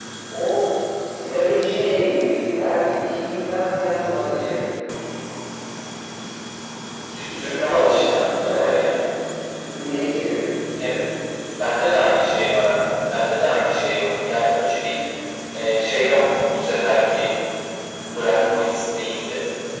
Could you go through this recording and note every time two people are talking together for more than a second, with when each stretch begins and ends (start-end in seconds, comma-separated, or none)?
7.2-8.7